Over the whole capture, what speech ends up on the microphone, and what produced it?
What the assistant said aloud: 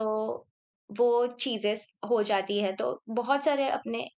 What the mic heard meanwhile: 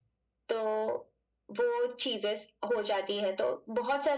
echo only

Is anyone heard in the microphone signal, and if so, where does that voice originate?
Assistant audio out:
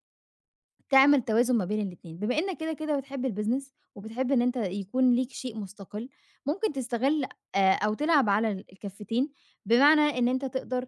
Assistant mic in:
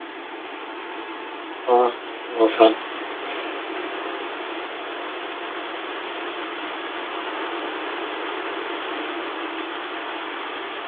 user only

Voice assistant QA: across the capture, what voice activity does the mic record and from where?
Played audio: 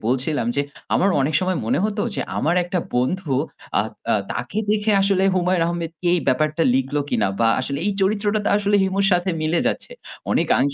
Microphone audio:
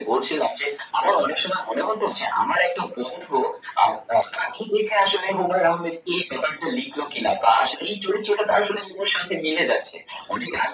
echo only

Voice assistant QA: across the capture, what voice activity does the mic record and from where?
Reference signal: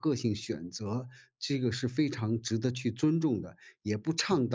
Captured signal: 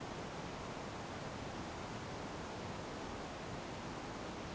neither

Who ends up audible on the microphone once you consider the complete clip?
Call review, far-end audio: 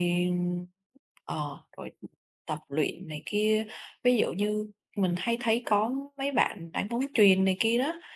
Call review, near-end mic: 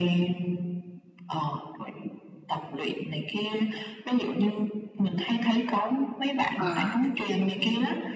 both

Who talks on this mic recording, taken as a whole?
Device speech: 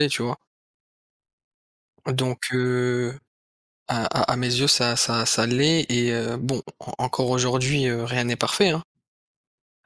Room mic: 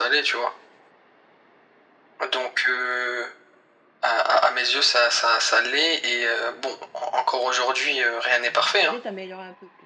both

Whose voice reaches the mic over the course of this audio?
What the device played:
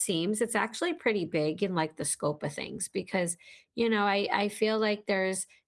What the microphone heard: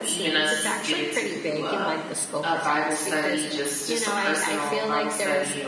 both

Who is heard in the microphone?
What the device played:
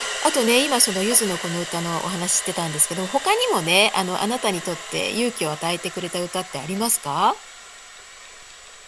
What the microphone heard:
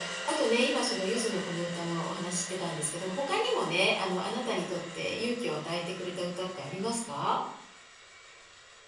echo only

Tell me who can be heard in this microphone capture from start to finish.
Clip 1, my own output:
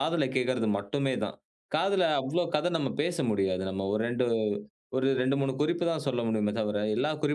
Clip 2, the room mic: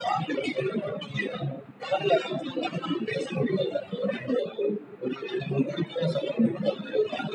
echo only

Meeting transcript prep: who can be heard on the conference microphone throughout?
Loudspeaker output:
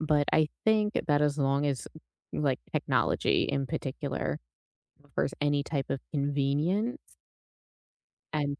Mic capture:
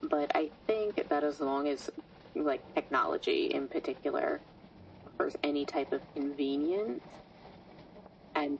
echo only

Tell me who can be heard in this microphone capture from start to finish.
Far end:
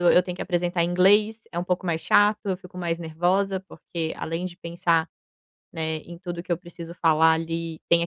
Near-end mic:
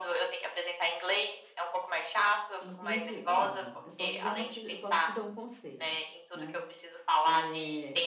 both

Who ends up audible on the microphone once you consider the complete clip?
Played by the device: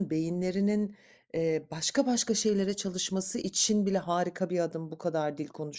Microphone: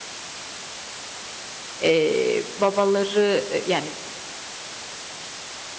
user only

